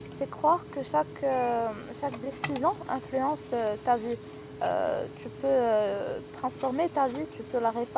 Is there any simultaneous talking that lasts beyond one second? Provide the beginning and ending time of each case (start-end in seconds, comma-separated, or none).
none